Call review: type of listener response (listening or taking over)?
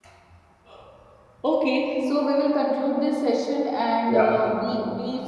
listening